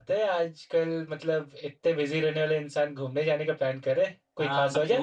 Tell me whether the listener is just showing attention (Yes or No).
No